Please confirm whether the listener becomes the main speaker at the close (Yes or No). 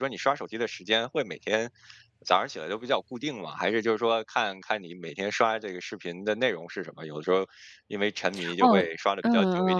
Yes